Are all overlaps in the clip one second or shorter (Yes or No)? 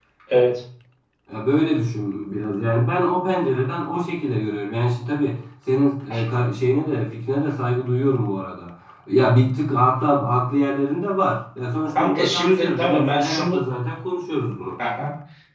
No